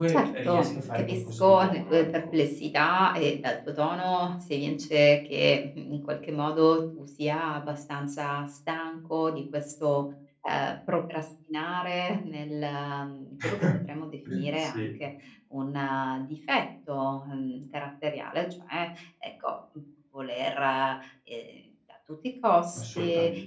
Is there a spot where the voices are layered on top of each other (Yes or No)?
Yes